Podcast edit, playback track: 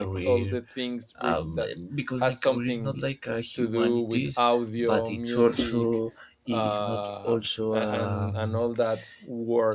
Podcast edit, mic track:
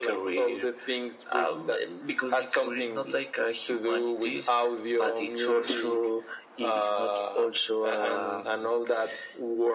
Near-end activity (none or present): none